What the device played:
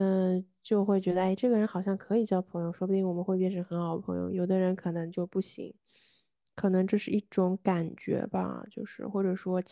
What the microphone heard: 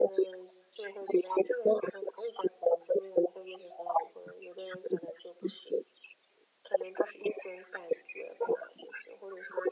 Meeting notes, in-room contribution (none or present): none